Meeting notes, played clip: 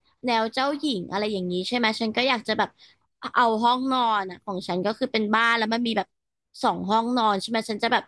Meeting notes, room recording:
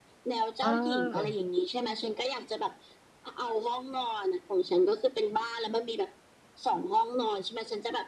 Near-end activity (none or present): present